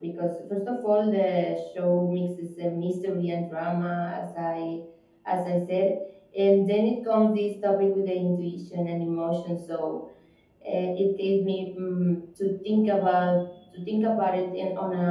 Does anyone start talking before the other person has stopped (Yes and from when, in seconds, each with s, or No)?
No